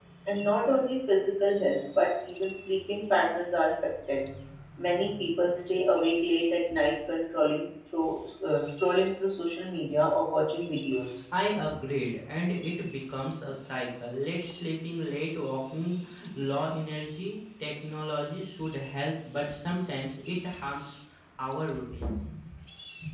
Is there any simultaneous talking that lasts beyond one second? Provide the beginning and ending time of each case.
none

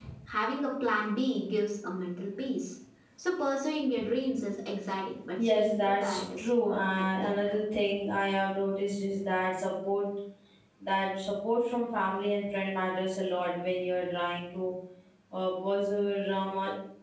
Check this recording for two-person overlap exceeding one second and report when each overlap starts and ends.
5.4-7.3

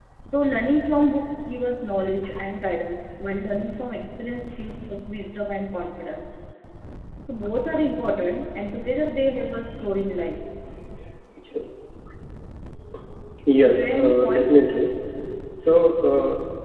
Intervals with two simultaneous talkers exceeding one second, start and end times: 13.5-14.8

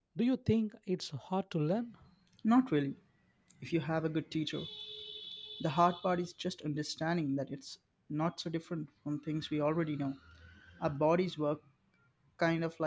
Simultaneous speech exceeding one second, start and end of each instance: none

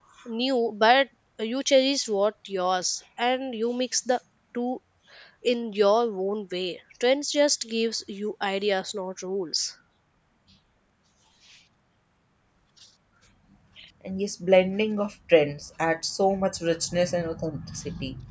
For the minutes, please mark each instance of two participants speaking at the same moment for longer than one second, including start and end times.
none

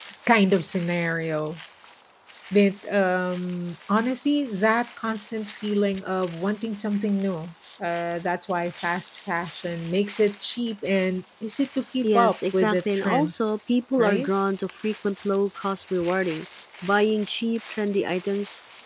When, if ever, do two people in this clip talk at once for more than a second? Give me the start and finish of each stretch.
12.0-13.5

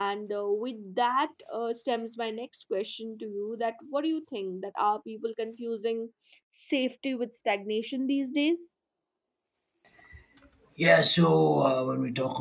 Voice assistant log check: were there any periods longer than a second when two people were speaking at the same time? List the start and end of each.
none

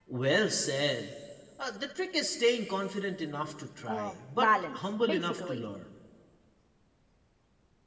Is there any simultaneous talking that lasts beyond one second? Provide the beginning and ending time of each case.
3.9-5.6

